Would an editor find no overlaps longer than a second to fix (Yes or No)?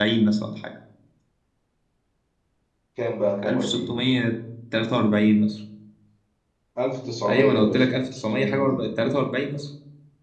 No